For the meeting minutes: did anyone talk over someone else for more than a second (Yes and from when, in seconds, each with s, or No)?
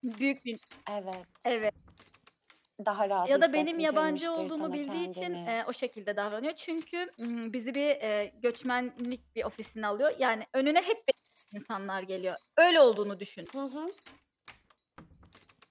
Yes, from 3.2 s